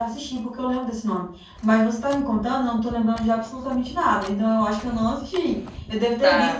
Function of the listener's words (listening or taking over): listening